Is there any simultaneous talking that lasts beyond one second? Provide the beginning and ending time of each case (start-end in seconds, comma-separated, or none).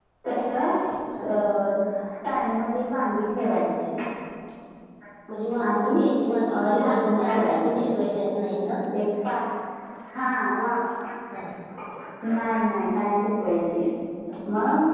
6.6-7.8